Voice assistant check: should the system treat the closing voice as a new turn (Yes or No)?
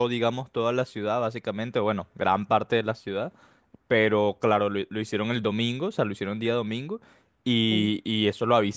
No